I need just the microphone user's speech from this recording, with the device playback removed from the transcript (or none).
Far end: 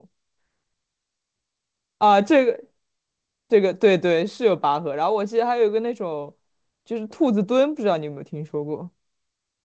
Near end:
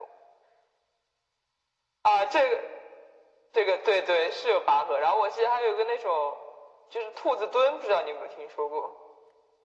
none